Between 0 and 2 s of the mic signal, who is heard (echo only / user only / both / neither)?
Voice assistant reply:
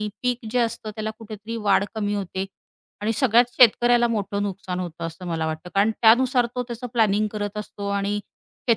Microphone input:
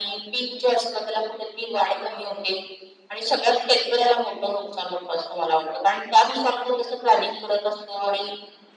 echo only